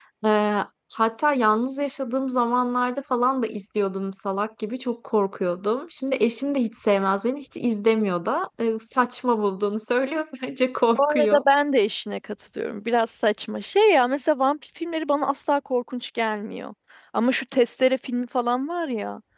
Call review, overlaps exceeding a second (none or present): none